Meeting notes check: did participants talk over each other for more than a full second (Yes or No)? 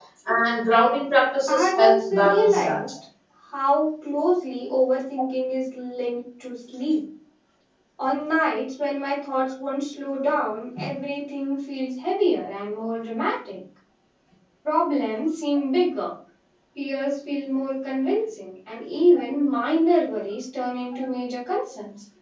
Yes